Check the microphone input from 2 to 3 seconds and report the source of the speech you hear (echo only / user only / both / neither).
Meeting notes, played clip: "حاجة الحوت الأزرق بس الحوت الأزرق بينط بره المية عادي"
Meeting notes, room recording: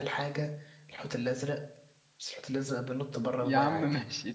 echo only